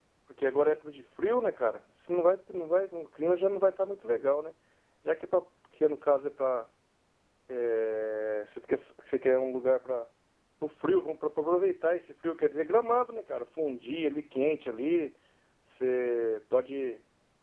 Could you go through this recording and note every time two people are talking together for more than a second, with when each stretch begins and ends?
none

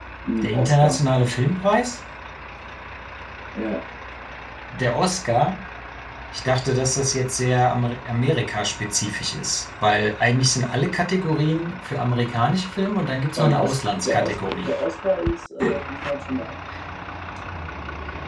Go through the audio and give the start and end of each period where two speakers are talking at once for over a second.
13.4-14.7

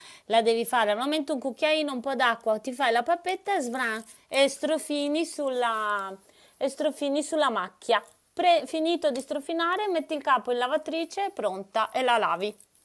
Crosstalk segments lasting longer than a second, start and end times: none

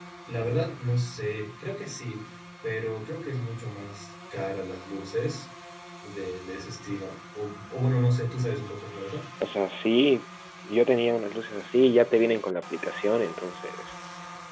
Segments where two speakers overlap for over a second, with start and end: none

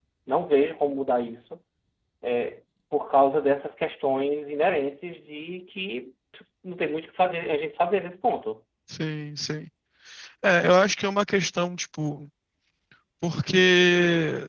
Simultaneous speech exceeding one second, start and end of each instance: none

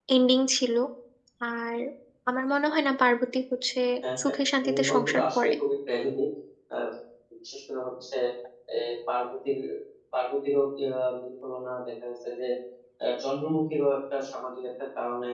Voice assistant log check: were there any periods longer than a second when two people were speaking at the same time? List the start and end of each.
4.2-5.5

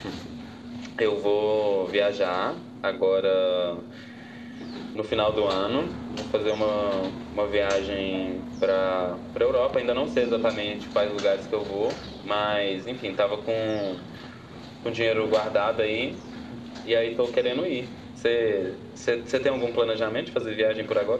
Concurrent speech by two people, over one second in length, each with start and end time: none

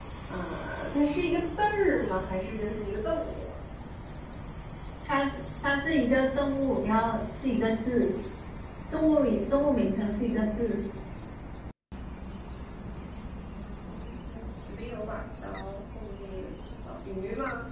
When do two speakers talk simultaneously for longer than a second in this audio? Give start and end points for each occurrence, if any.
none

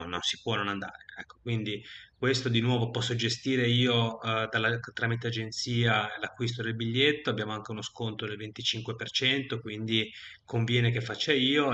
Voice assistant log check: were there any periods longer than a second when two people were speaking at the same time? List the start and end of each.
none

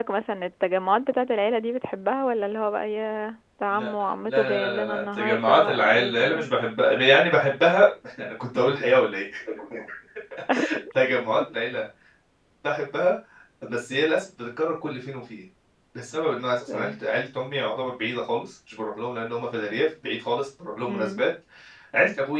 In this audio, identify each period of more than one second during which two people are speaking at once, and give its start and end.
3.7-6.5

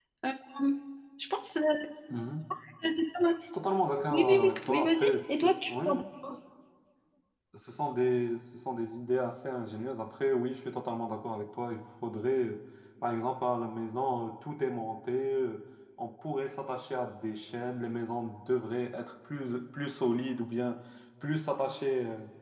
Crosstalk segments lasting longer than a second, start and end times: 4.1-6.0

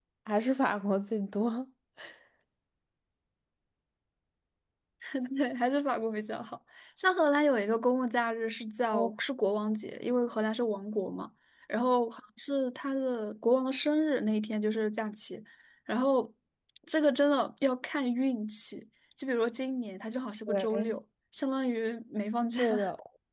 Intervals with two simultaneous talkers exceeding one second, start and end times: none

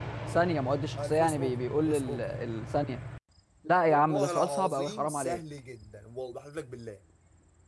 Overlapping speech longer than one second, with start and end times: 1.0-2.2, 3.8-5.4

